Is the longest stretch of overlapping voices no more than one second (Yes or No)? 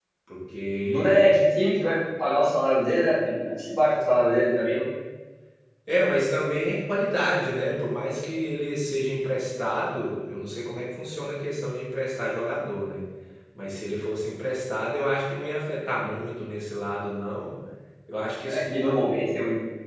Yes